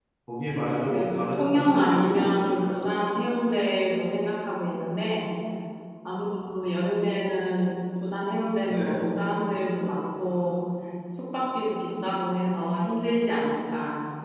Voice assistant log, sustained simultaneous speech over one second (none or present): present